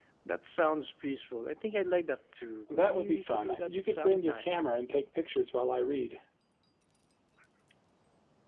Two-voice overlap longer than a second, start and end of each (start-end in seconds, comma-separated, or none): 2.7-4.6